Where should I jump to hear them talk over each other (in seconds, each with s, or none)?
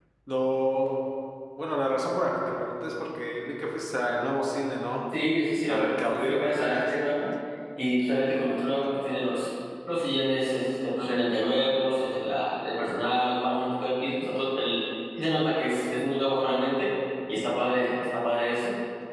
5.7 s